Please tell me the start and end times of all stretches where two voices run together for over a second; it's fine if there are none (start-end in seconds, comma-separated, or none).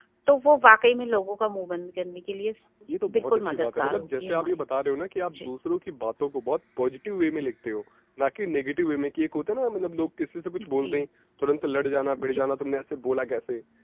3.1-4.5